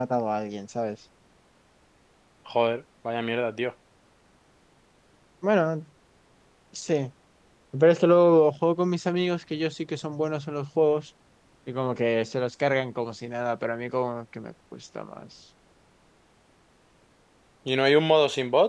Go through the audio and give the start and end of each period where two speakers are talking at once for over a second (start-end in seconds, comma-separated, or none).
none